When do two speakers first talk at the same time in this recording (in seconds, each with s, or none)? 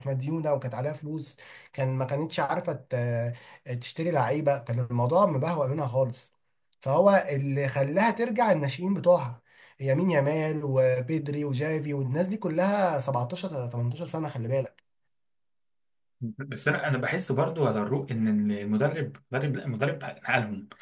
none